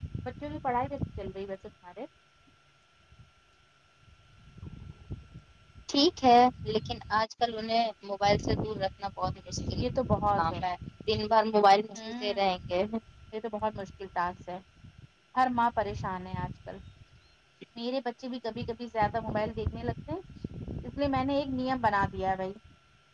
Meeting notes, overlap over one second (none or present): none